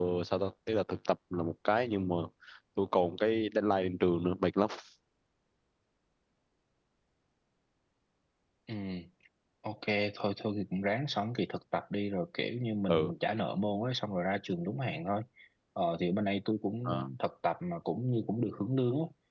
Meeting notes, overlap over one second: none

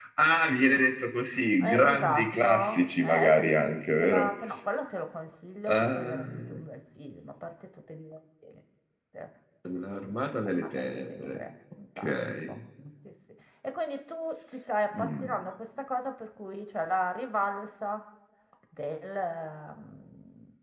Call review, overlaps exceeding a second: present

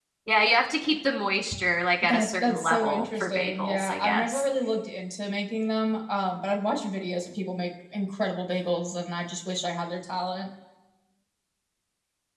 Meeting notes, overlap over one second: present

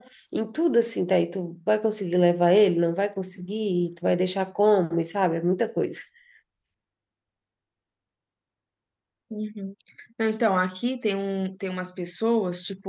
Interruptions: none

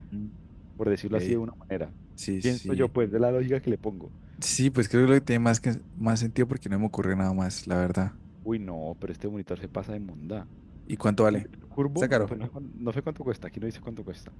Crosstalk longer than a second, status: none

